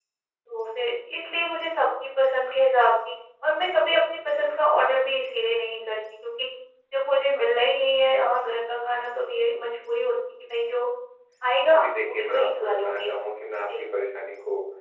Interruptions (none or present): present